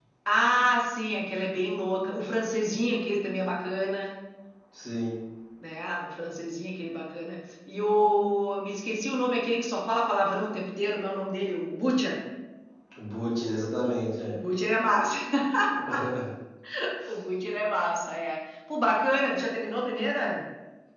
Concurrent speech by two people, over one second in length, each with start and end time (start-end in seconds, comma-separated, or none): none